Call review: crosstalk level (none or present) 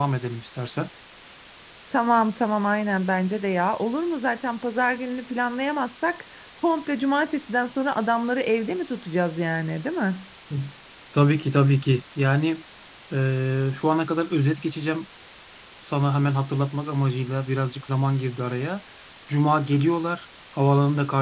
none